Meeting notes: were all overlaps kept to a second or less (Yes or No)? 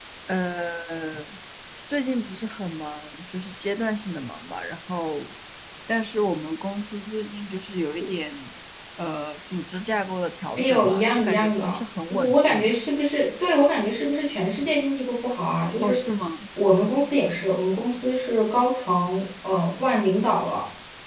No